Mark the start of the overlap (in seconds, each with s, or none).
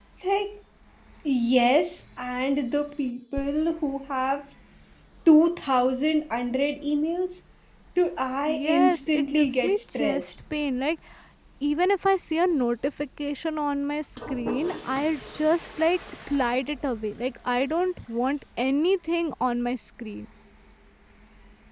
8.5 s